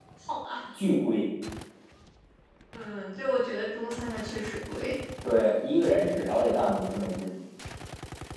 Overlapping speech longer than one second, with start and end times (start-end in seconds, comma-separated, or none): none